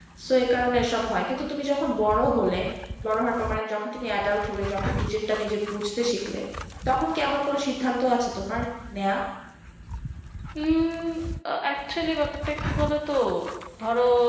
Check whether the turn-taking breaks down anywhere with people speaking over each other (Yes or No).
No